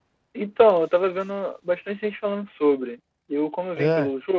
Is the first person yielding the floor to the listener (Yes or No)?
No